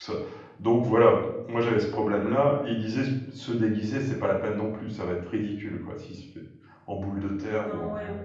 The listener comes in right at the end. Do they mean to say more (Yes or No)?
Yes